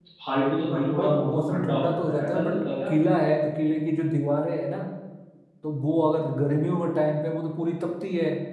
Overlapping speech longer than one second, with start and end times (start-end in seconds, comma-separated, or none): 1.0-2.9